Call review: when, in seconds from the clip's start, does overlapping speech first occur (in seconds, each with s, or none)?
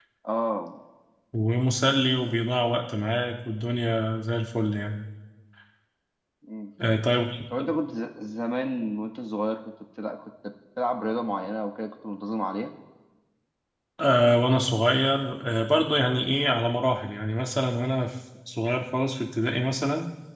none